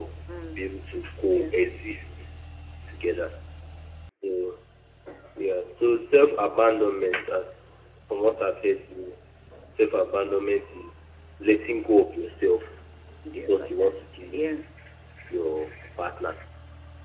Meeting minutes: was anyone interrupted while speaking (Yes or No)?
Yes